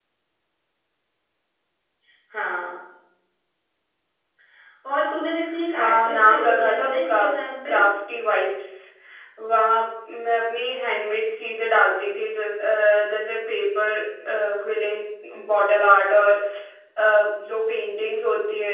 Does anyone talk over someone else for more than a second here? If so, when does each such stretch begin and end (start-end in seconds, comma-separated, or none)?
5.7-7.2